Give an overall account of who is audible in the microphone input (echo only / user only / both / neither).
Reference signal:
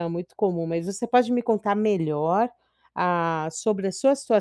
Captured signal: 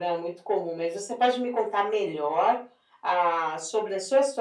echo only